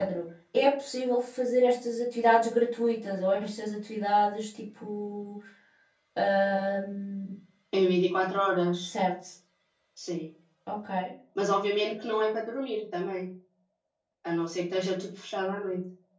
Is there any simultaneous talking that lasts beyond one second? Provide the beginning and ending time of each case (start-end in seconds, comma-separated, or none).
none